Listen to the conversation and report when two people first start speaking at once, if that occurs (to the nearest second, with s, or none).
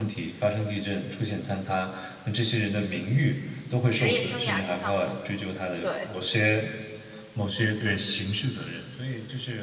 4 s